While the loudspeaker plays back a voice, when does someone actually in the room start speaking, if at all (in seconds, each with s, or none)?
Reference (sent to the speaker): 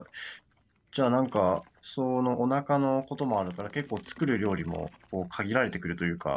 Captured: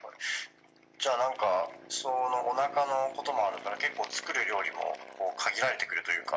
none